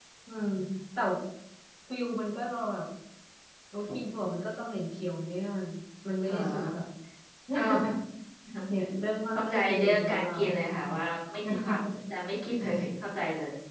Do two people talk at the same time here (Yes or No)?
Yes